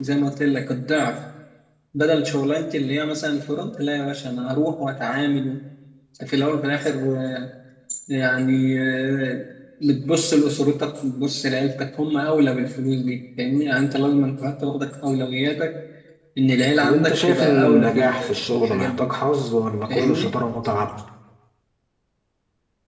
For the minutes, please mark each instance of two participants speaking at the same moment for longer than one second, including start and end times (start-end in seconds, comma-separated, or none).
16.8-19.1